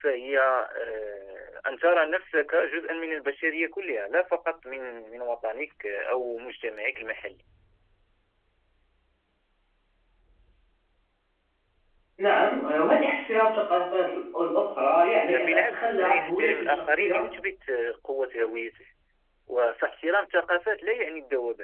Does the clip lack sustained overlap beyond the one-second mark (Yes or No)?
No